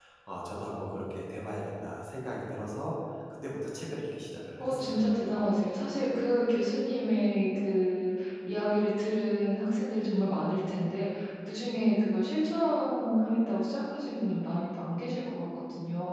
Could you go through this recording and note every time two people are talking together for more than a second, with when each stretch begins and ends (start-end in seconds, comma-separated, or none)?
none